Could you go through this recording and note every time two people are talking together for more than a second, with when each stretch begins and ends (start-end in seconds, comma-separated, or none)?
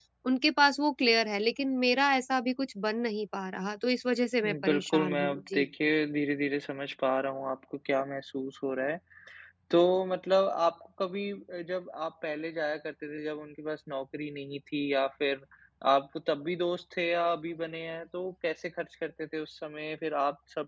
4.4-5.7